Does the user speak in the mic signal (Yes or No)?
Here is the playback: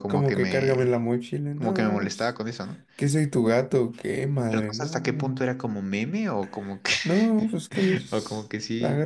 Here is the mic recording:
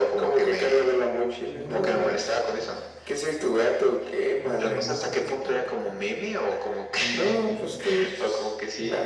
Yes